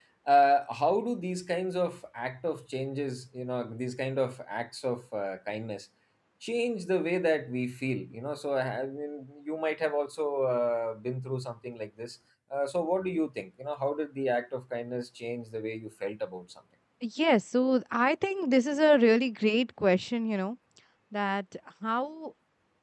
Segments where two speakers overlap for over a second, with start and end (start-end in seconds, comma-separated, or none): none